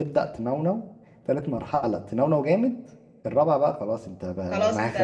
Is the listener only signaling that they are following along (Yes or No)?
No